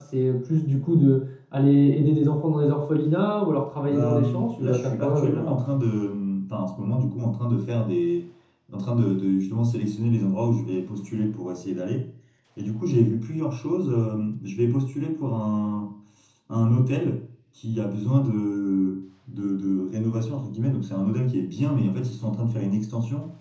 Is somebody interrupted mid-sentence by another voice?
Yes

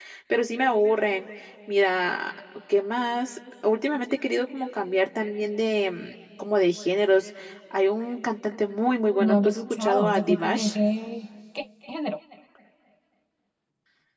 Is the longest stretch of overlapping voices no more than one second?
No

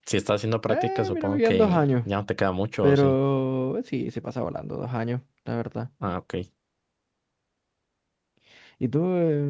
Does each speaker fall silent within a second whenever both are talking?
No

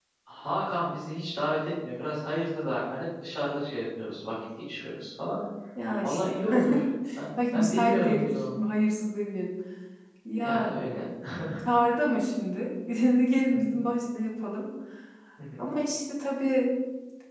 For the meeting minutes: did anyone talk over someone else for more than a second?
Yes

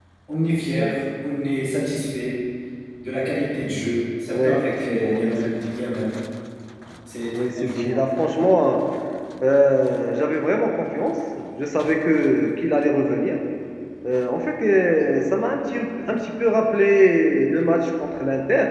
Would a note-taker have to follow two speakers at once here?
Yes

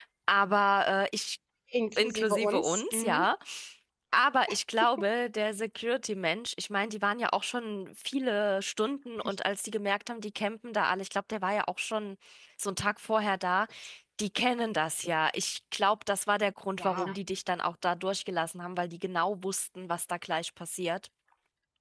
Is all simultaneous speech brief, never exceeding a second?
No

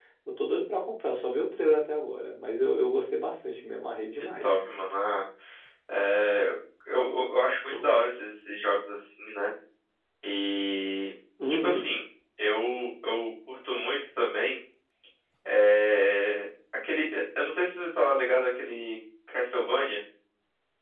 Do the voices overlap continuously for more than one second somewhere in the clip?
No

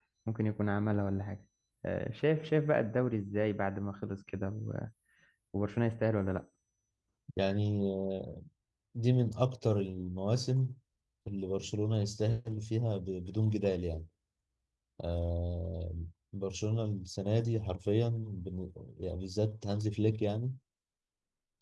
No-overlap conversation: Yes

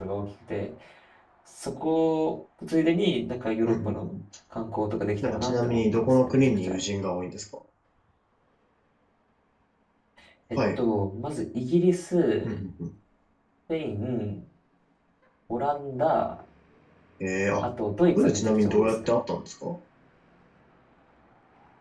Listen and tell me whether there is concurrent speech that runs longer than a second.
Yes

